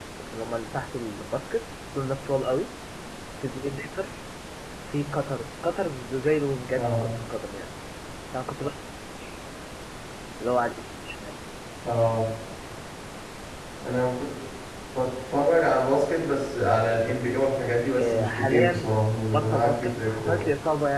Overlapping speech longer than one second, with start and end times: 17.9-20.5

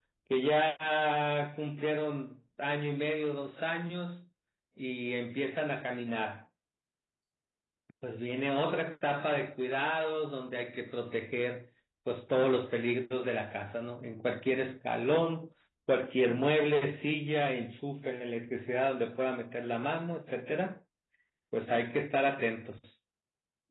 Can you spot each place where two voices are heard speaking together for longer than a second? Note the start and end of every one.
none

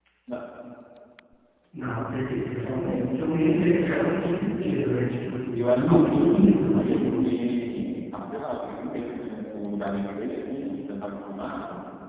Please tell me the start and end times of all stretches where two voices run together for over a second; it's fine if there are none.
5.5-7.0

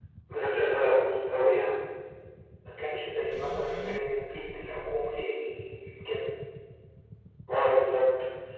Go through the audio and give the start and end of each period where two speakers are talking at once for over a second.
none

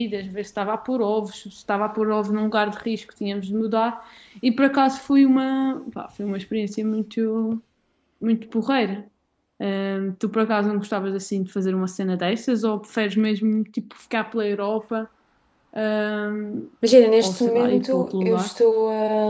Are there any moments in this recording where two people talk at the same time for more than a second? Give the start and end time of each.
17.2-18.5

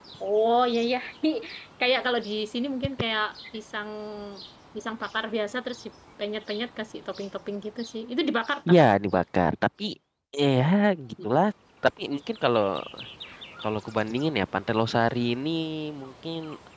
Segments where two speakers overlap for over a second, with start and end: none

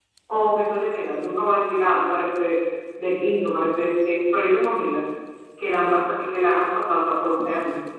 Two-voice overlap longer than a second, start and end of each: none

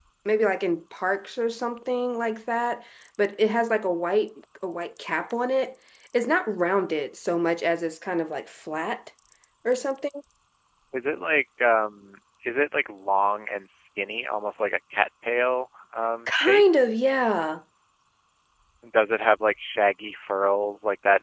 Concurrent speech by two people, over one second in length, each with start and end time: none

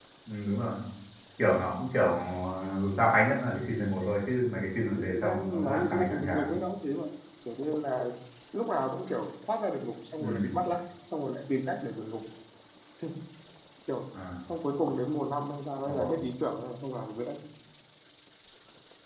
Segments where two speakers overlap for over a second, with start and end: 5.0-6.5

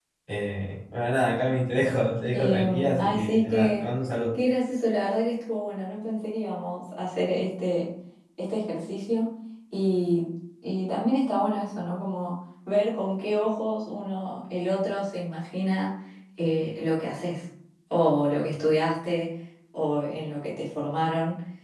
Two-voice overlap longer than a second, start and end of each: 2.3-3.9

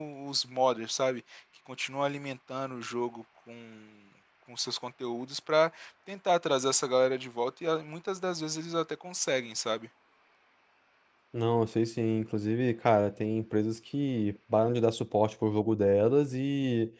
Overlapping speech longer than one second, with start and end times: none

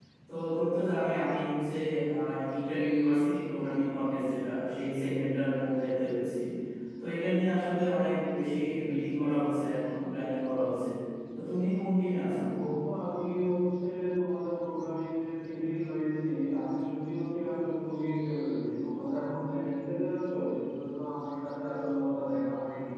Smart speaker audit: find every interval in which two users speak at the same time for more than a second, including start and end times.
none

